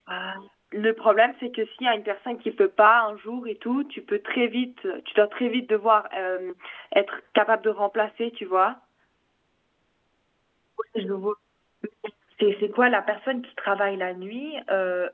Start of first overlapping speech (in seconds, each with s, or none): none